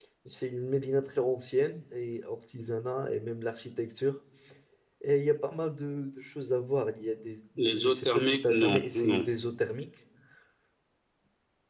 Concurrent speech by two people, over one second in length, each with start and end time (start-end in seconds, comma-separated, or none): 7.6-9.2